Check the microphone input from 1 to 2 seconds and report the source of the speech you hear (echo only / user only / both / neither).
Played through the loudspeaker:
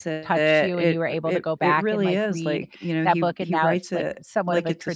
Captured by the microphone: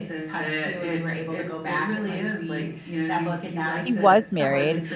echo only